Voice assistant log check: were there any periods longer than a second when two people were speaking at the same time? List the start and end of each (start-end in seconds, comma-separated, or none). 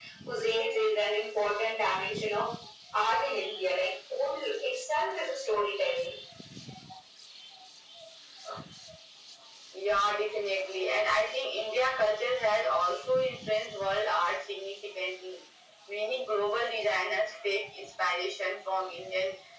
none